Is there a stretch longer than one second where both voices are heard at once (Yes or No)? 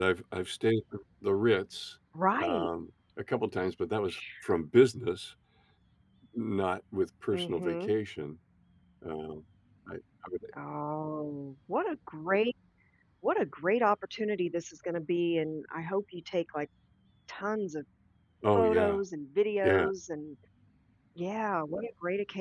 No